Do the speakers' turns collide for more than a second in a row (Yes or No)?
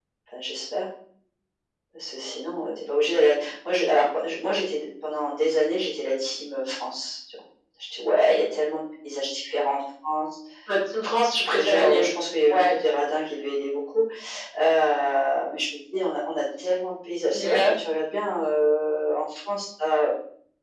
No